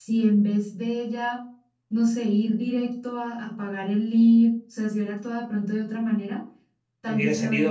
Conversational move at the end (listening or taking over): taking over